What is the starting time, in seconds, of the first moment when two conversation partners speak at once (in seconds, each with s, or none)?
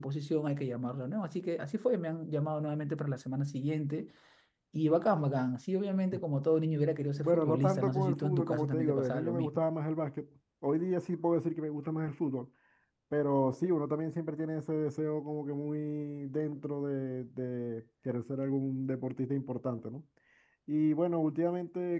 7.2 s